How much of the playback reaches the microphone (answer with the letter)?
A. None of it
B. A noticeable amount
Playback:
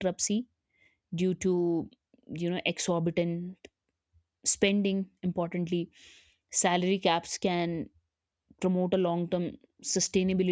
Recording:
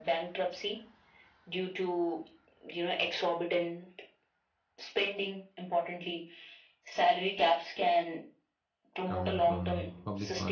B